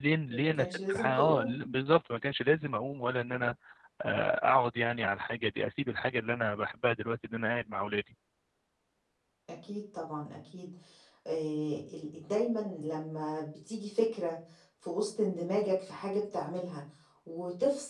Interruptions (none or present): present